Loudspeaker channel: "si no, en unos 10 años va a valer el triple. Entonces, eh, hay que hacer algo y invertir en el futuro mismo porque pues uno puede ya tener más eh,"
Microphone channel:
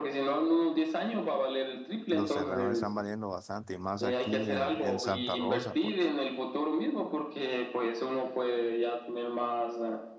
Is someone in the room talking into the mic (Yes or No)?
Yes